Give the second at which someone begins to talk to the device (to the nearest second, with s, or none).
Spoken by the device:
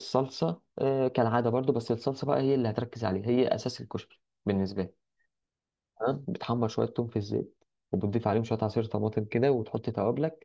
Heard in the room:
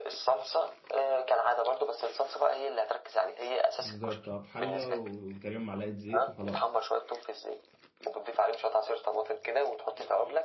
4 s